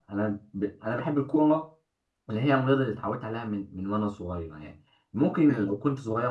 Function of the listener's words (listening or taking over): listening